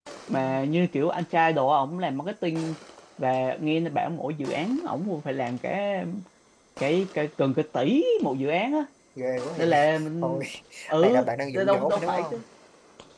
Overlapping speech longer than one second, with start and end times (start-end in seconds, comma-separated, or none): 11.0-12.2